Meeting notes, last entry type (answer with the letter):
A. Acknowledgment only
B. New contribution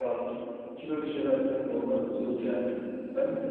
A